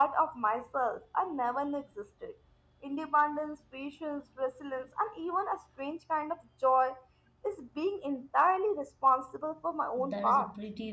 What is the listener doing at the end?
taking over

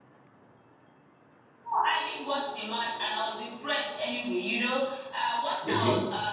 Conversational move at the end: listening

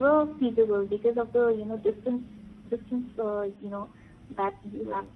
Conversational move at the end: listening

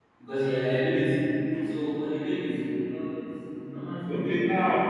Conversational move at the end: taking over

